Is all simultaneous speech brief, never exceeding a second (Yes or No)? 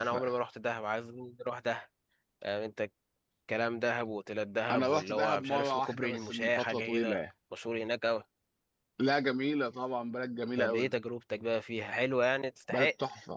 No